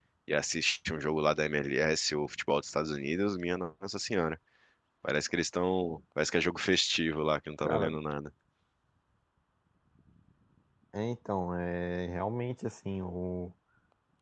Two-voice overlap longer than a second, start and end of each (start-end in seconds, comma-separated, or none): none